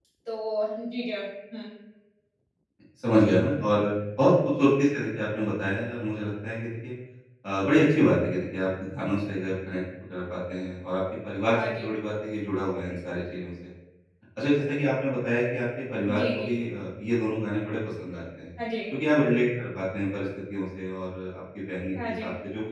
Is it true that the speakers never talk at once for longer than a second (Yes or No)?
Yes